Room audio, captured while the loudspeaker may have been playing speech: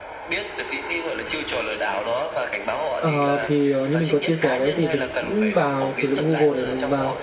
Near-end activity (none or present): present